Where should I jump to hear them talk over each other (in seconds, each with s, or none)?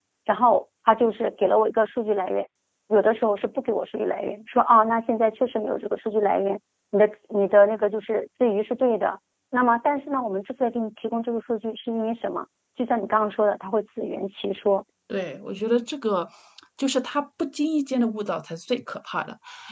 none